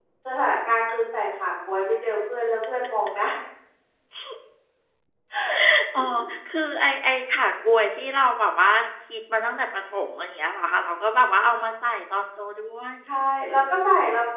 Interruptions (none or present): none